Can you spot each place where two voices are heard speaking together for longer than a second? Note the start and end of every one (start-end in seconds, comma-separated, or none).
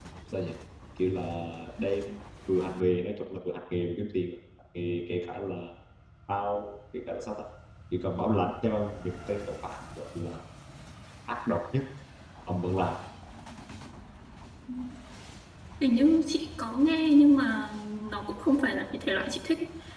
none